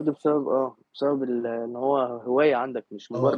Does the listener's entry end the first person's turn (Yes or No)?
Yes